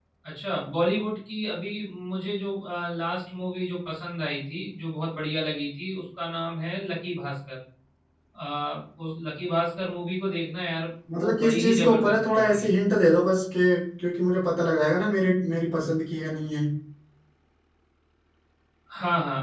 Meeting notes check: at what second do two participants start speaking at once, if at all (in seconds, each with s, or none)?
11.1 s